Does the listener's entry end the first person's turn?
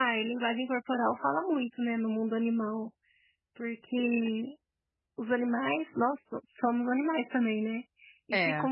No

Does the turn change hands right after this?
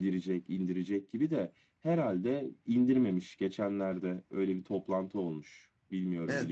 Yes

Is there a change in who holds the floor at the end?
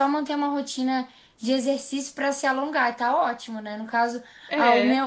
No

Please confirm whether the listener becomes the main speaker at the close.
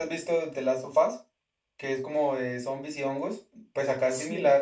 No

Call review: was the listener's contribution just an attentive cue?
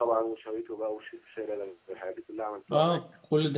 No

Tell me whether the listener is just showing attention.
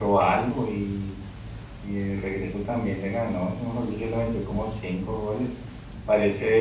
Yes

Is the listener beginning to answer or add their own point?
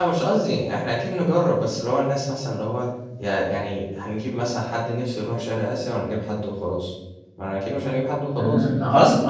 Yes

